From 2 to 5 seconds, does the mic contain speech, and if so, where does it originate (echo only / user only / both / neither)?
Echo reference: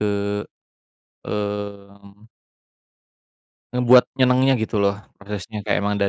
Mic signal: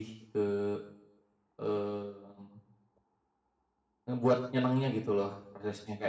echo only